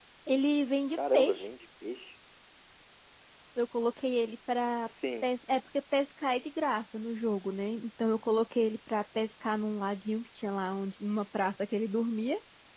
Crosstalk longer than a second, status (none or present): none